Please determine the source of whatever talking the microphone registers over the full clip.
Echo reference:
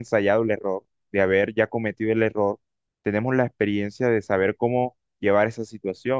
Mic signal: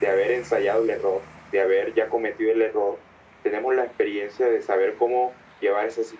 echo only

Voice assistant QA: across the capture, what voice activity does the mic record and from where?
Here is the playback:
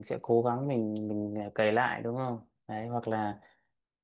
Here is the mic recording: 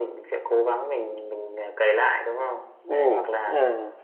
both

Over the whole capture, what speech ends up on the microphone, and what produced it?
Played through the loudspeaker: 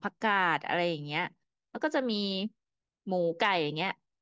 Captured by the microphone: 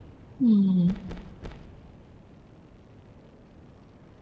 user only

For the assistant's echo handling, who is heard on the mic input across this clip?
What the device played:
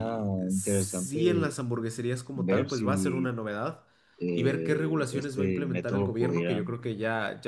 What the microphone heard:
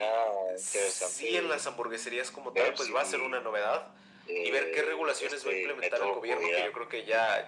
echo only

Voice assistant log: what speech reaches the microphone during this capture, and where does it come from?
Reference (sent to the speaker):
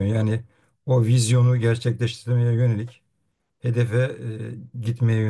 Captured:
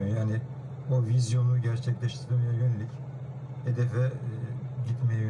echo only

